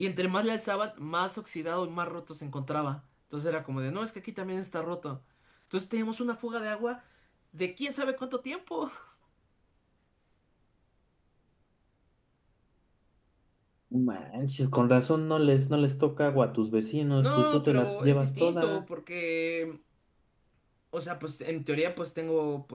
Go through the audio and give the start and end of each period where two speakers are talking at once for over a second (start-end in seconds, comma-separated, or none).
17.2-18.8